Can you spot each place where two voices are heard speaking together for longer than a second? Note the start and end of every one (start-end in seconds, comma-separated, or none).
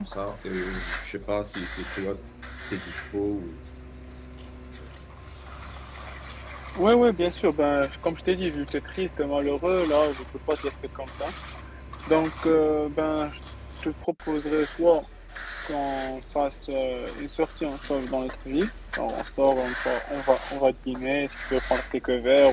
none